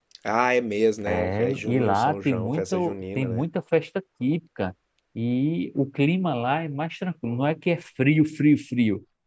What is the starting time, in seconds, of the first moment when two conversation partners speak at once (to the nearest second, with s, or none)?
1 s